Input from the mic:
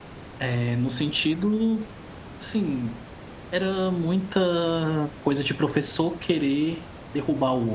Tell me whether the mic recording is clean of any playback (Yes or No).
Yes